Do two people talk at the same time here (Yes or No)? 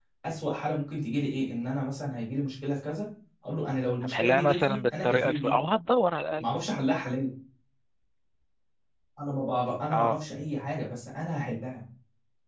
Yes